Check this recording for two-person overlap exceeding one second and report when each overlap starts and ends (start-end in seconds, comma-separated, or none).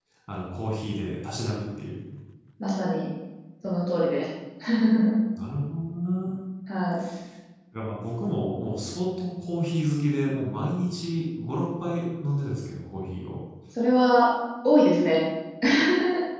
none